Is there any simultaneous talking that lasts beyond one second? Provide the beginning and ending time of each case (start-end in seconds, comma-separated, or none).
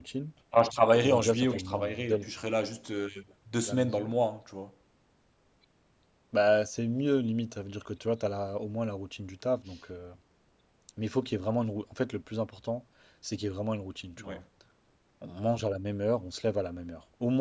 1.0-2.3